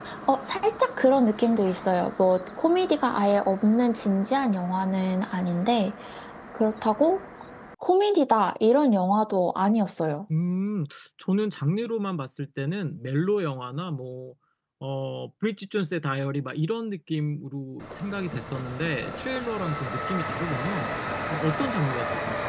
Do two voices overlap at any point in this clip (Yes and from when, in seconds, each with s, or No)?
No